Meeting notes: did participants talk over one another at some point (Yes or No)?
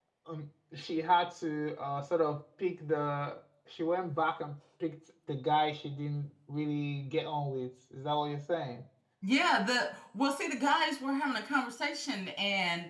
No